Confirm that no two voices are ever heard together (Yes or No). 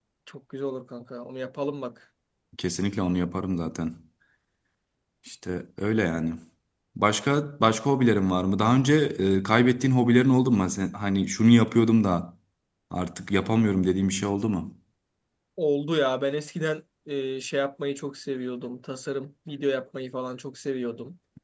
Yes